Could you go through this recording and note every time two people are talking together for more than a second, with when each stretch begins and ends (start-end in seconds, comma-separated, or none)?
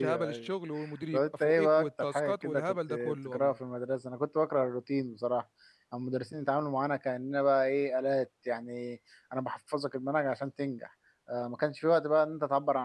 1.1-3.6